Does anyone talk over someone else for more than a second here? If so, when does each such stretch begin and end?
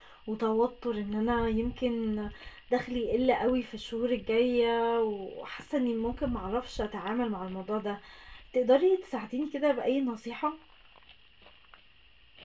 none

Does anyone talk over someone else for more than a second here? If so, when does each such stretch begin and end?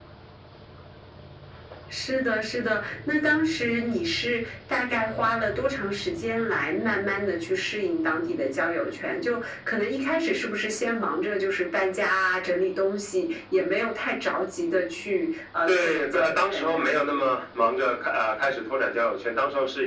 15.7-17.2

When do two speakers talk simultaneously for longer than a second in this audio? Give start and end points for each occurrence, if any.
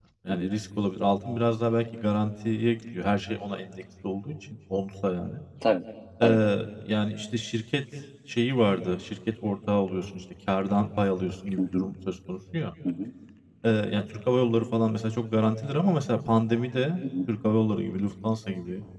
none

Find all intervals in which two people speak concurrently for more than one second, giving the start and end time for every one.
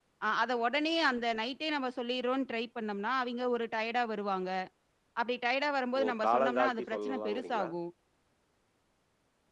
6.0-7.7

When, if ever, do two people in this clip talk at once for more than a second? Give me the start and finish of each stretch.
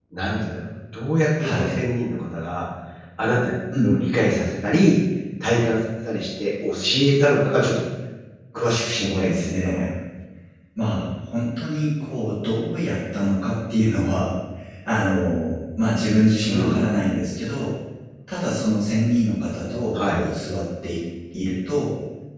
8.6-9.8

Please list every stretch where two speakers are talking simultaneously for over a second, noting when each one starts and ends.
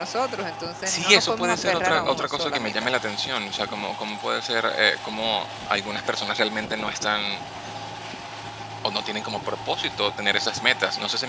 0.8-2.7

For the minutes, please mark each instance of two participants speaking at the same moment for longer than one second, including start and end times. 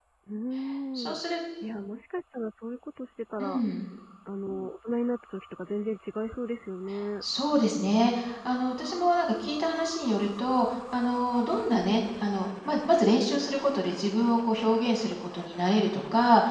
none

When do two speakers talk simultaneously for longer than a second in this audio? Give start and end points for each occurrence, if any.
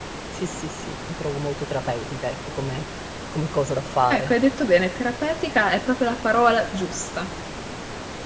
none

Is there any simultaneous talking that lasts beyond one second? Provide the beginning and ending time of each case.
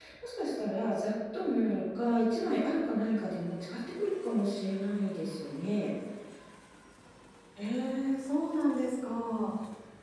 none

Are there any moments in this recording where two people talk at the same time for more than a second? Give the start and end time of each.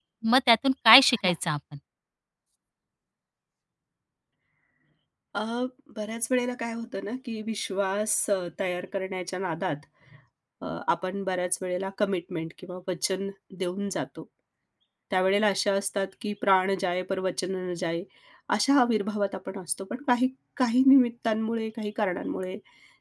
none

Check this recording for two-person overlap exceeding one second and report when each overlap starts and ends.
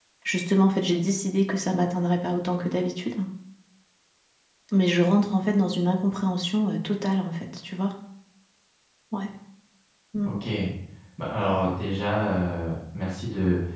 none

